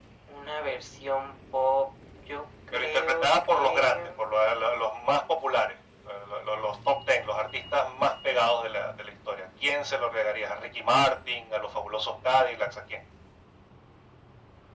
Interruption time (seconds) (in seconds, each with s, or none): 2.7 s